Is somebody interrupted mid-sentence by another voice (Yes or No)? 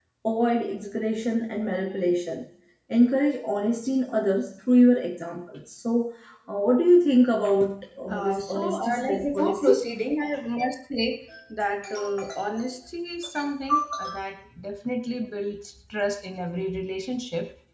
Yes